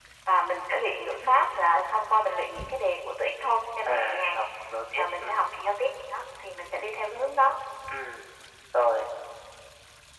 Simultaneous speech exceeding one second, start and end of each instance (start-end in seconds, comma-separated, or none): none